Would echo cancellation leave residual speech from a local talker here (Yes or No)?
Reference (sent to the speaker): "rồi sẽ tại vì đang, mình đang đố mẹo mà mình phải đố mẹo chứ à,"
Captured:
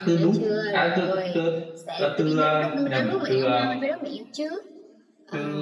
Yes